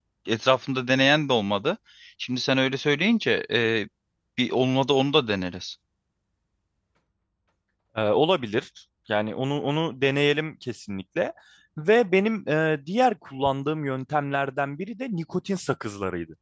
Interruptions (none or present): none